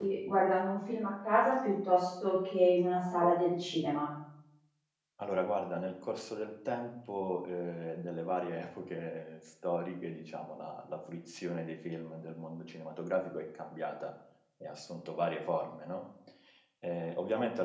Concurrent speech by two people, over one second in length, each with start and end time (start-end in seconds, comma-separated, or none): none